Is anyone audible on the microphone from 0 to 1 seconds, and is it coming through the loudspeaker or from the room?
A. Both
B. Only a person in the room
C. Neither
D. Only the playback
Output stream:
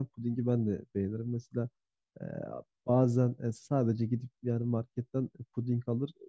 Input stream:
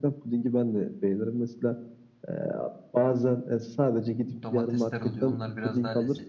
D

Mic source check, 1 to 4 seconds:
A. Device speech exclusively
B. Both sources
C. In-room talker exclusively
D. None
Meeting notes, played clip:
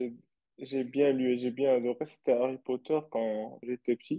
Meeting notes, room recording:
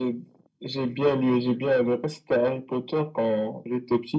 A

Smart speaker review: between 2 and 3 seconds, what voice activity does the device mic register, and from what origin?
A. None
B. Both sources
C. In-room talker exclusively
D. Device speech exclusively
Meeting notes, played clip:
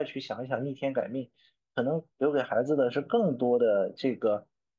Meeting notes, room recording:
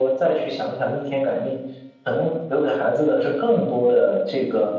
D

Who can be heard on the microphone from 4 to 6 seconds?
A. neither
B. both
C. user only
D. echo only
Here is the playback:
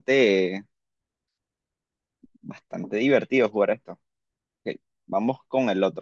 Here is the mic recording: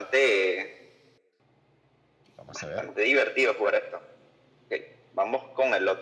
D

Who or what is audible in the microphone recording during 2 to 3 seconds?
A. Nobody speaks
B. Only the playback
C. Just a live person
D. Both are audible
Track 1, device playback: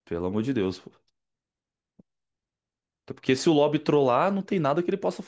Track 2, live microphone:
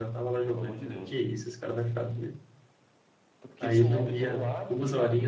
C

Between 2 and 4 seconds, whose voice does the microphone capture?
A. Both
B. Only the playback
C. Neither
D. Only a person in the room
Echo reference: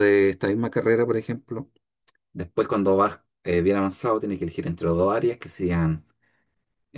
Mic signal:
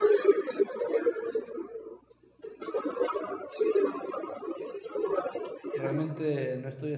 B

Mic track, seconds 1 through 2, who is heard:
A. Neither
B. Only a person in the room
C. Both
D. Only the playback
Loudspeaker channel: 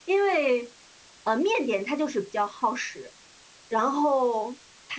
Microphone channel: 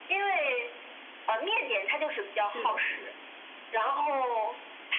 D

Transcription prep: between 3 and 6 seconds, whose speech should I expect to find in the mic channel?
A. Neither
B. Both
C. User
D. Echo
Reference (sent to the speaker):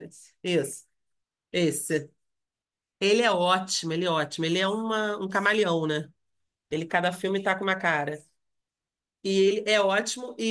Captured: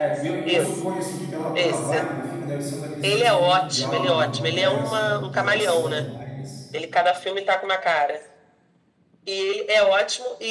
B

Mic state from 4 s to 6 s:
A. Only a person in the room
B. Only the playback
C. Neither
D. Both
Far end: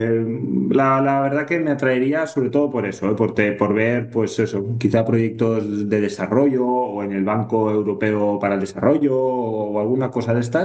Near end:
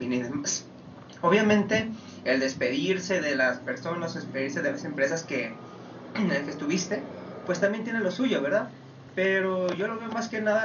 A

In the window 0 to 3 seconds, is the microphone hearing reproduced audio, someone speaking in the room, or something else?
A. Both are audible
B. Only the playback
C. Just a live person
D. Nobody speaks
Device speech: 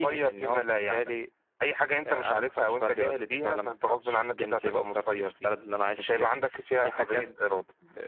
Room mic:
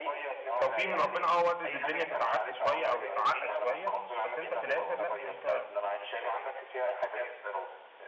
A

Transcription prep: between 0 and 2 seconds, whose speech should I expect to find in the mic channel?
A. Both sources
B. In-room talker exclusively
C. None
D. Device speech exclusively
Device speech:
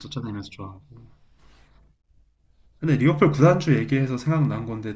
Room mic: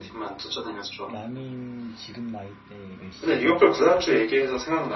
A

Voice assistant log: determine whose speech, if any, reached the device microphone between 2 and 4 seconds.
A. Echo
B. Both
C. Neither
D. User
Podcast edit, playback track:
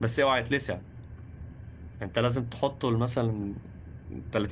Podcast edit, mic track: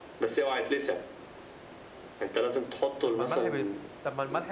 B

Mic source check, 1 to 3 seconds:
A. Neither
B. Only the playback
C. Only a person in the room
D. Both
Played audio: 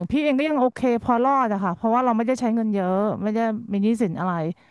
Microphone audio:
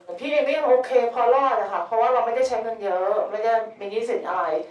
B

